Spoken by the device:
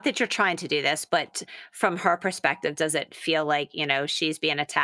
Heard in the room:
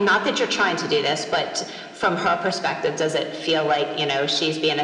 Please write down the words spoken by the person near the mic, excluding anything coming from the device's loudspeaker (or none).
none